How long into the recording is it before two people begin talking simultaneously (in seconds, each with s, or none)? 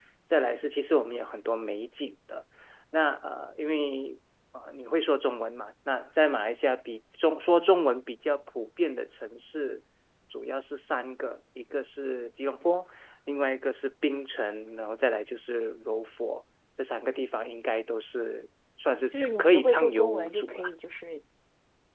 19.1 s